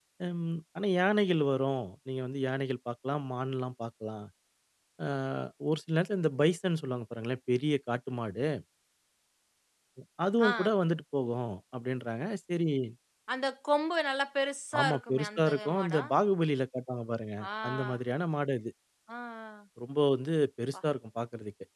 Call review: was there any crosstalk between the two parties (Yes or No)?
Yes